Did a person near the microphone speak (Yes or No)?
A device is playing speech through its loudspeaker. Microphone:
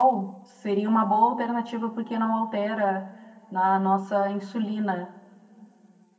Yes